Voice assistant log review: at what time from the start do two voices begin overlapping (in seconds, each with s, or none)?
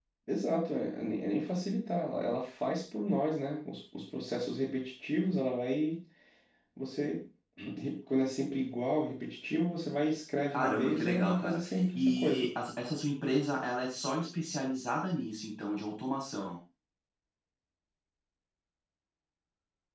10.5 s